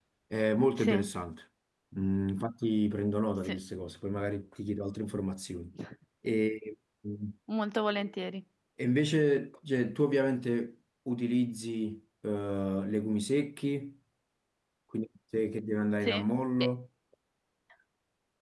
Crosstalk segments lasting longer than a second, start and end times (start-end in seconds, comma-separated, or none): none